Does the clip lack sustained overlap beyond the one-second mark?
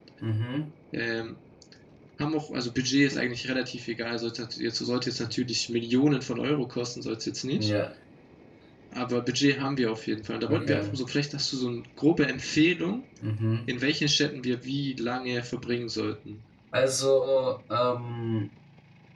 Yes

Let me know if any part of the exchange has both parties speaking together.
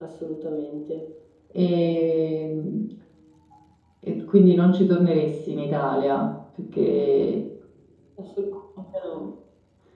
No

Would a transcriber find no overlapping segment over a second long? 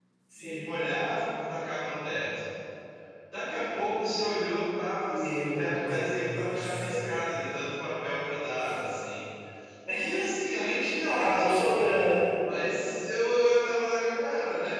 No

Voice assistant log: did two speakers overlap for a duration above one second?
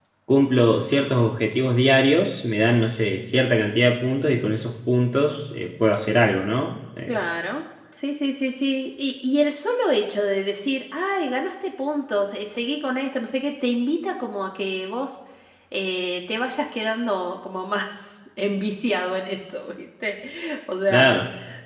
No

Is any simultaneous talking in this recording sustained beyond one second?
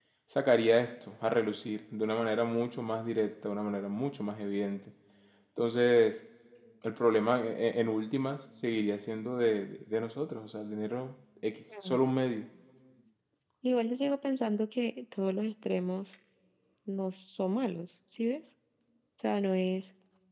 No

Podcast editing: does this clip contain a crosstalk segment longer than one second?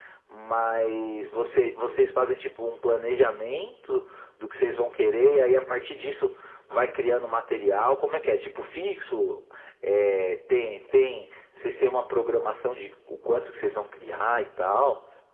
No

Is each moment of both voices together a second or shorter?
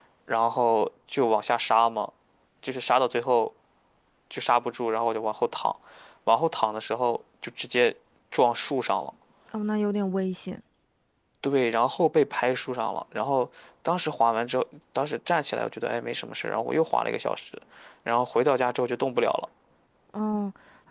Yes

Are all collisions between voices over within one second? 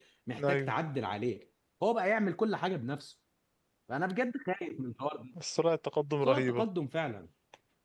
Yes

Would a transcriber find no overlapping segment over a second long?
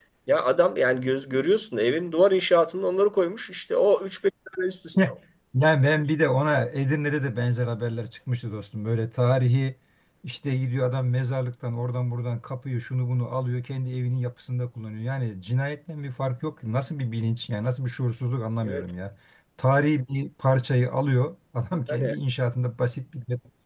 Yes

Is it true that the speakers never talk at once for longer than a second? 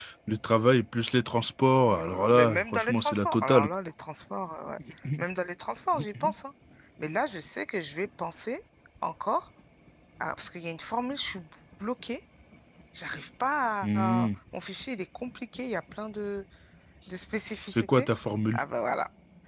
No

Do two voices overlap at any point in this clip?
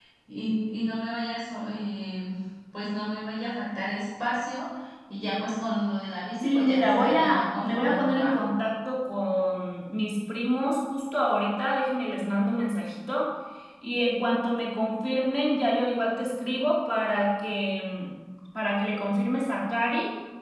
Yes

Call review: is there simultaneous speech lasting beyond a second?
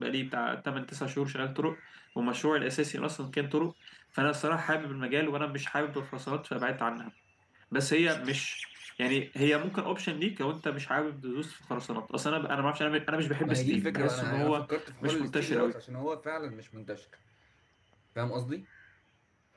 Yes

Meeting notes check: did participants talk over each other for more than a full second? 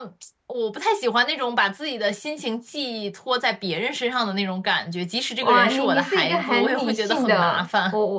Yes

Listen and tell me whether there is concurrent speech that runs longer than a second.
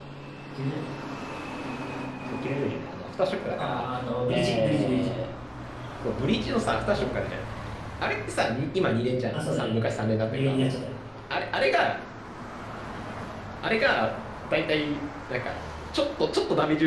Yes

